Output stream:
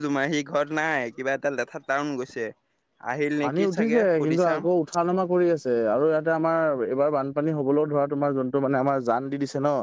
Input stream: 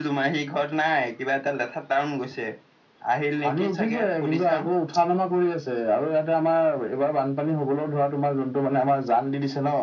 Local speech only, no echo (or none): none